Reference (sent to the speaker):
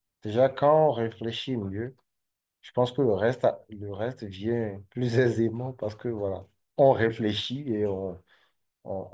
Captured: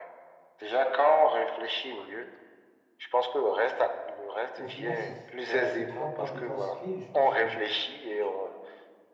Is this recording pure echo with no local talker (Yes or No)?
No